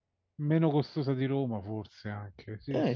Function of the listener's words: taking over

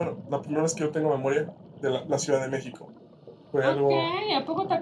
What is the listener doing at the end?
taking over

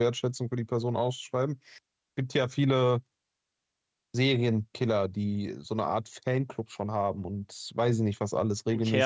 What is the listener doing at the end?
taking over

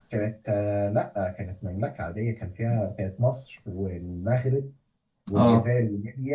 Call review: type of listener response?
listening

